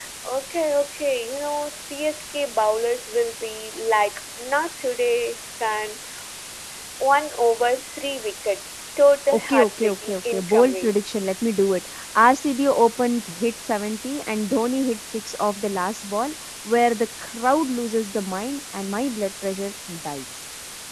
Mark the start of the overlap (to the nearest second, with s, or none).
9 s